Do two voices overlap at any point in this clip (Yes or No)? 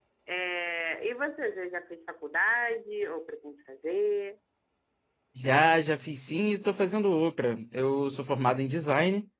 No